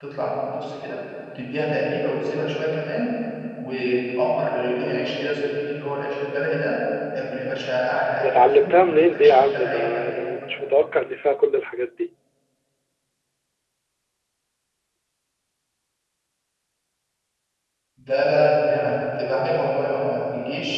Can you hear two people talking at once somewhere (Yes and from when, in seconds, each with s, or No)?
Yes, from 8.2 s